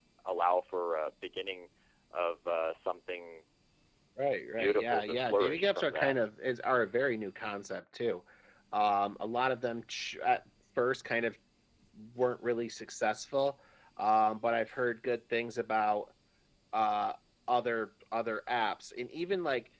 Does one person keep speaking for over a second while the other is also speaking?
Yes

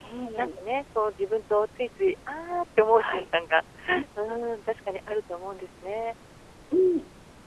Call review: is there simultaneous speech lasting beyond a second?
No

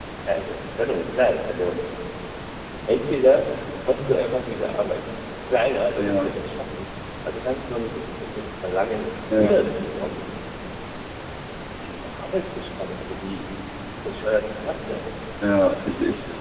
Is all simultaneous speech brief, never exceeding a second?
Yes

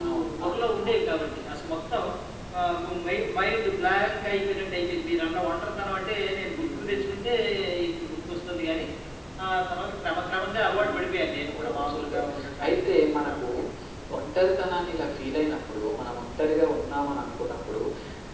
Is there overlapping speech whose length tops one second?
Yes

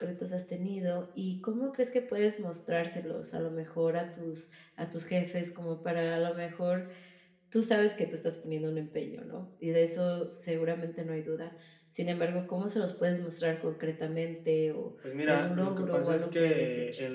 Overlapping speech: Yes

